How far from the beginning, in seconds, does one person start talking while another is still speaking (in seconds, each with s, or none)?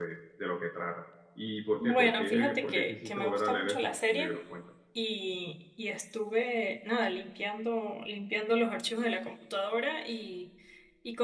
1.8 s